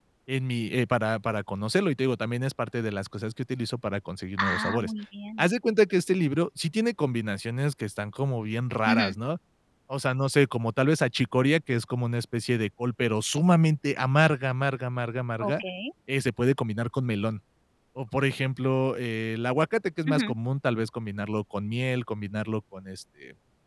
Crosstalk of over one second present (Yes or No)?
No